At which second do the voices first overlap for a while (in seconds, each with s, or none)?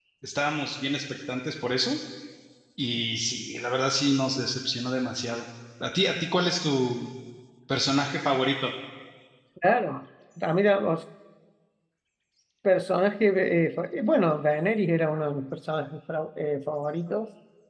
none